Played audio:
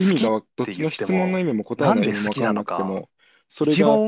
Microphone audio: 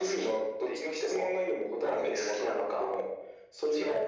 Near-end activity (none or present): none